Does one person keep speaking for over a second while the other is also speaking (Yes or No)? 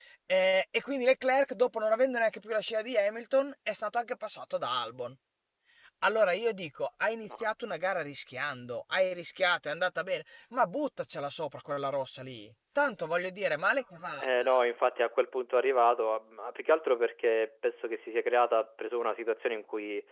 No